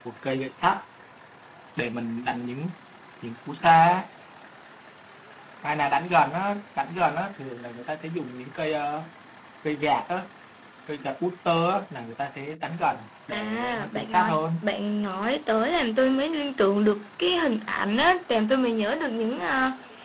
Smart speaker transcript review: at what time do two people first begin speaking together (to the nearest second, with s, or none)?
13 s